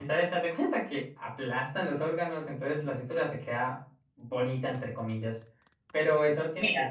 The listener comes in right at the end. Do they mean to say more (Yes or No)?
No